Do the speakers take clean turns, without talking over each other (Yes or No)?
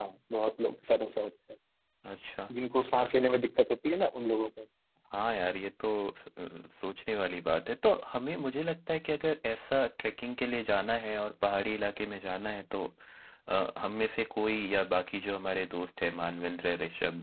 Yes